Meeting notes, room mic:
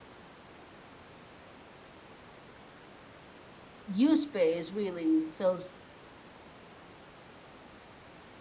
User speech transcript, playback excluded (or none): you space really fills